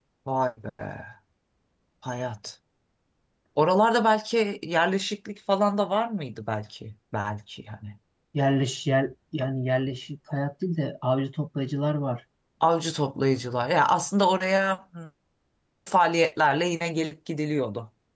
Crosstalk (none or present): none